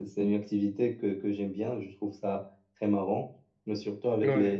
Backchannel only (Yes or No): Yes